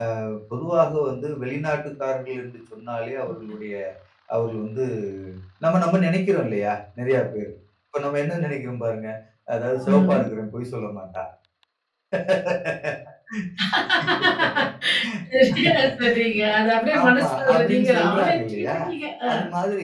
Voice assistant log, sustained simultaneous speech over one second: present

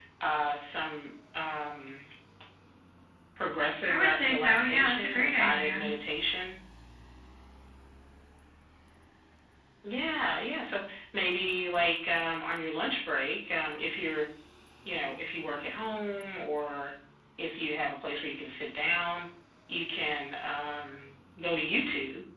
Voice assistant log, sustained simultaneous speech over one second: present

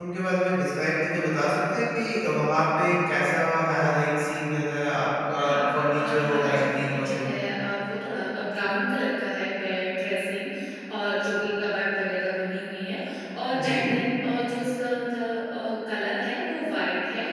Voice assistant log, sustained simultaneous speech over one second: present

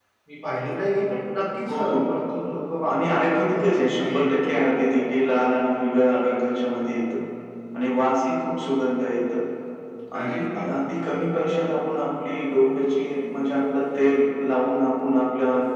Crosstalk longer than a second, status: present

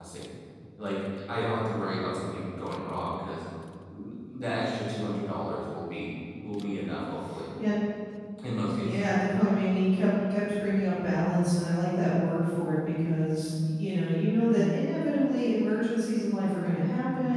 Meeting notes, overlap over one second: none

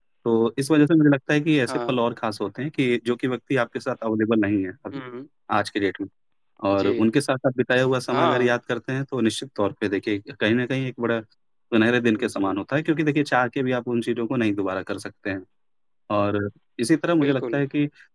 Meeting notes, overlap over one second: none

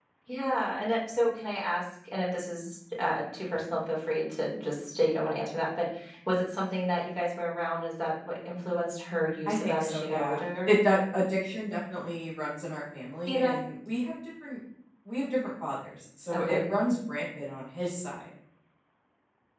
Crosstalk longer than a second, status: present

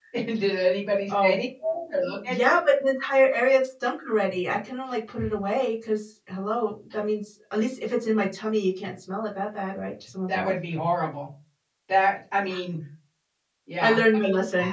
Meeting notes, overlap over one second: none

